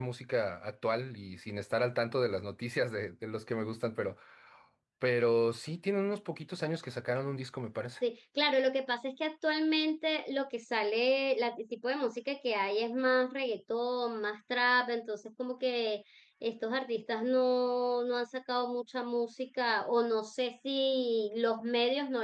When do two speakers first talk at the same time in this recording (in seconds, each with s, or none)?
none